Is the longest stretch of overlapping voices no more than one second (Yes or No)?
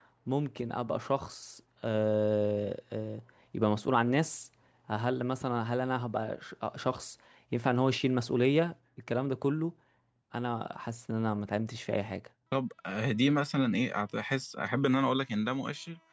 Yes